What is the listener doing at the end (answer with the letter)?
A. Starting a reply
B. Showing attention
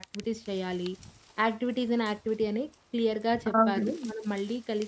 B